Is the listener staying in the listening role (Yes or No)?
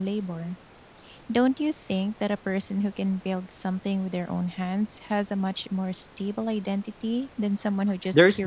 No